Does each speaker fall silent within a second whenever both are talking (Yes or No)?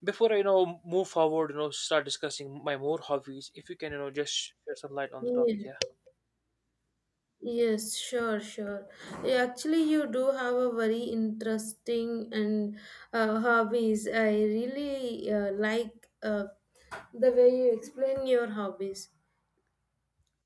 Yes